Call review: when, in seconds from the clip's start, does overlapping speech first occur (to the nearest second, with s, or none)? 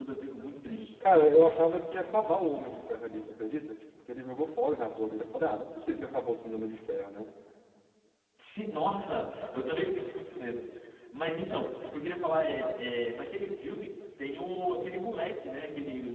none